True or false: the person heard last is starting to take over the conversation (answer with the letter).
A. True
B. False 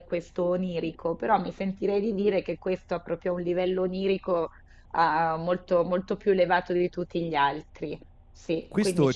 A